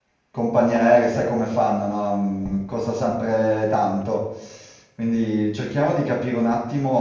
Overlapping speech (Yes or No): No